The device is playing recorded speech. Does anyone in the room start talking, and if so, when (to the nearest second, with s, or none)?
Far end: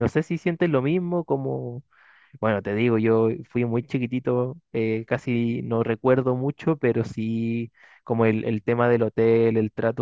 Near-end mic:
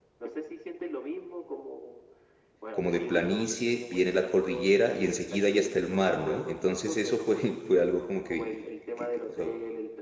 3 s